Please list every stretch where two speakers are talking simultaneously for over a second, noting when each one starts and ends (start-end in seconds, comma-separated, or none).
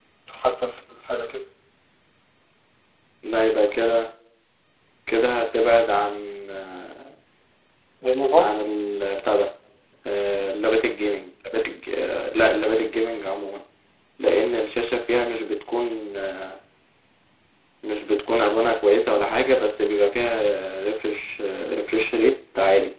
none